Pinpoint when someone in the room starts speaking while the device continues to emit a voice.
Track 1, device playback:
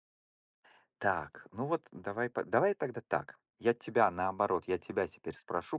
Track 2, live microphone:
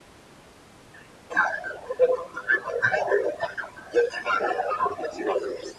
none

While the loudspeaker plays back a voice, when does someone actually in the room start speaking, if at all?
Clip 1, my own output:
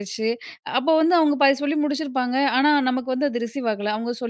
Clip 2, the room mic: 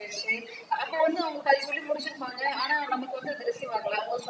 none

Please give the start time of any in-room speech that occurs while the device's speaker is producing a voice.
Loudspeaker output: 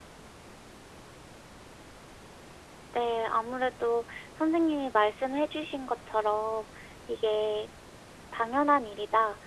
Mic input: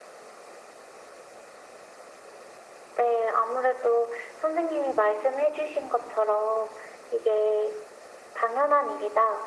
none

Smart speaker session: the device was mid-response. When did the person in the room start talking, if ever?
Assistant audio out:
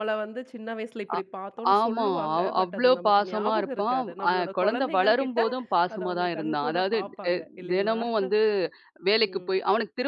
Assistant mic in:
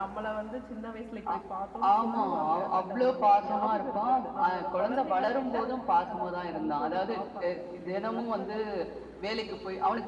none

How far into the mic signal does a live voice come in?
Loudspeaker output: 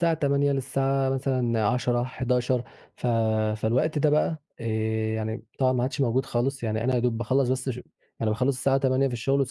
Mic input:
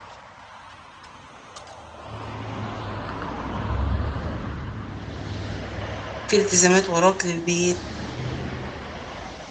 6.3 s

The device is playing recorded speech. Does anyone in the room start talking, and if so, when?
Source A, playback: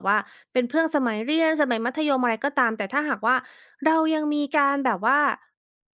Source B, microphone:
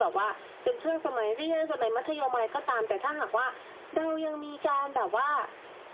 none

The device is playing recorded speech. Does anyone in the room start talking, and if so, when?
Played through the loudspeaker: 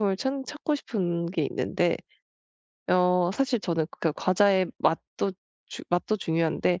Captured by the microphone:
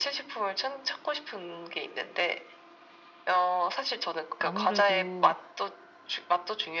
4.4 s

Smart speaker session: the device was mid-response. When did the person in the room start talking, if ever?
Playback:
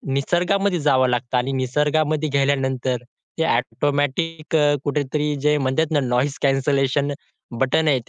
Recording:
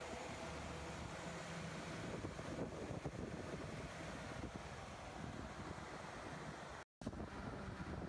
none

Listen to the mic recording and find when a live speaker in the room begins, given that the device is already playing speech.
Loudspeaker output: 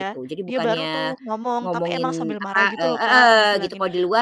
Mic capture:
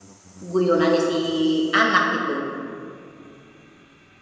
0.4 s

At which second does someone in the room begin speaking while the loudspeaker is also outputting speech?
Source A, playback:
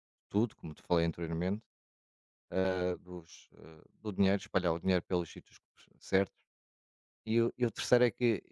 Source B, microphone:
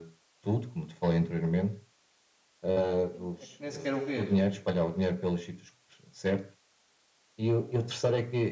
3.1 s

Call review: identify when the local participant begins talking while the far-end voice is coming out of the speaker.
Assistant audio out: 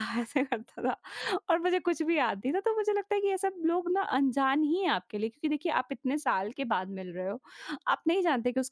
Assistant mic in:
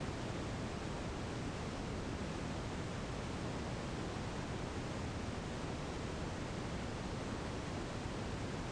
none

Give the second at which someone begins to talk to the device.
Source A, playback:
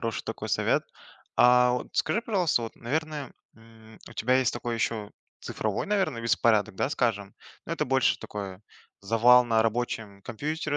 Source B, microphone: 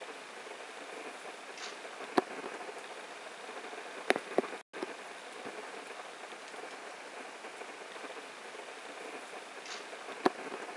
none

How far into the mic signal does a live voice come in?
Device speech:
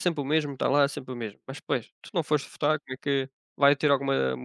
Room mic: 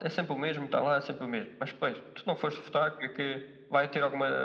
none

